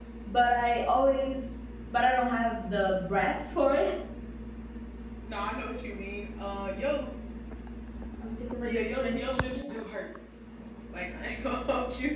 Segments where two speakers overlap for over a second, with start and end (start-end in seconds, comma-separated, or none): 8.6-9.9